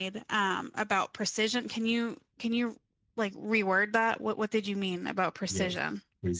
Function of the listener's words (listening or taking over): taking over